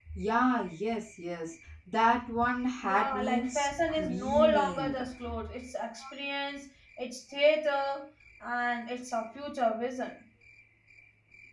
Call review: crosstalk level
present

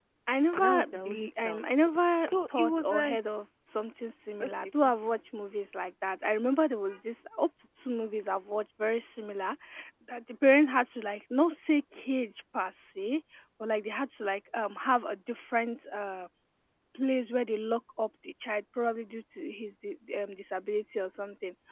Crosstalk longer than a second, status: present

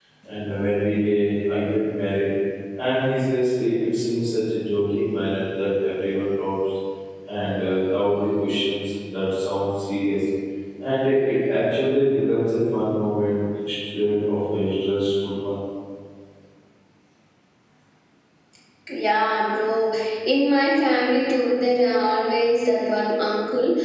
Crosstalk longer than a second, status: none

